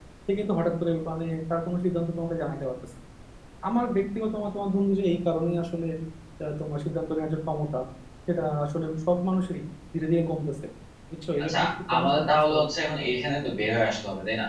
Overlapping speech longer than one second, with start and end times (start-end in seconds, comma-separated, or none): 11.4-12.6